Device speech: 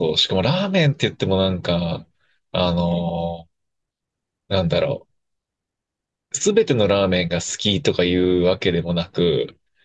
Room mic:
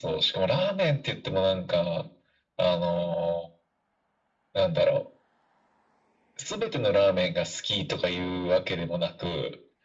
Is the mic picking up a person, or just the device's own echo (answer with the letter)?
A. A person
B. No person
B